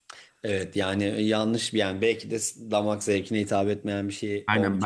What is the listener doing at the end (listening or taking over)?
taking over